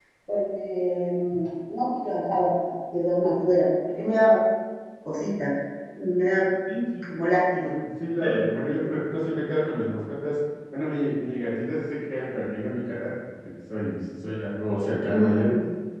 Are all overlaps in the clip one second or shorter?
Yes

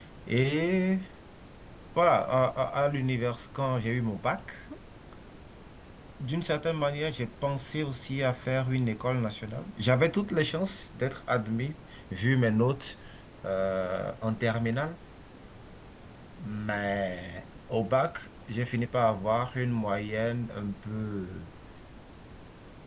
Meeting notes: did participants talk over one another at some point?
No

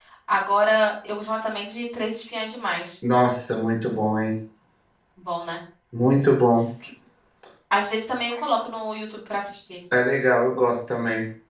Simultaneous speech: No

